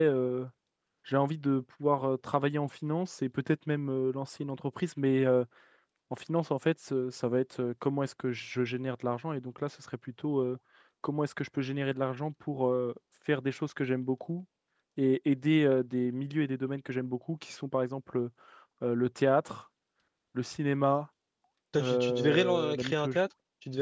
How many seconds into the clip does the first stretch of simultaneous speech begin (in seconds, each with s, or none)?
21.8 s